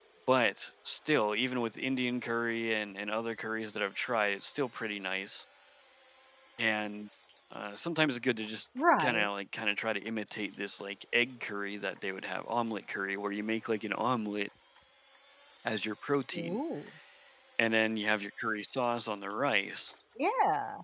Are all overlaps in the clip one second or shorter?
Yes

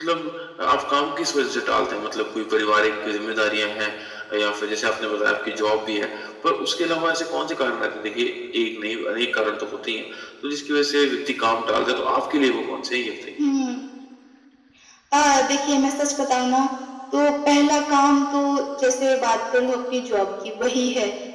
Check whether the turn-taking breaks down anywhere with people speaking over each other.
No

